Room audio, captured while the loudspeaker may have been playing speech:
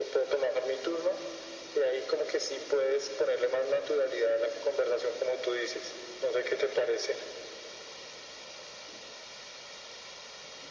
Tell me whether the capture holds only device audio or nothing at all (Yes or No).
Yes